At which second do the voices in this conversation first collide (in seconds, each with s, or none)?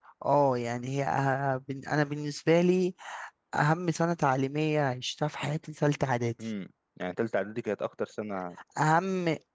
none